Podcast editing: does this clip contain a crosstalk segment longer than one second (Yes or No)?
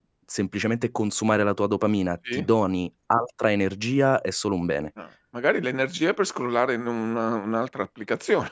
No